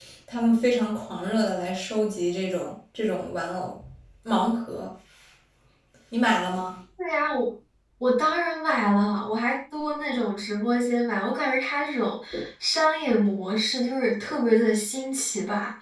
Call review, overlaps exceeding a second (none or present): none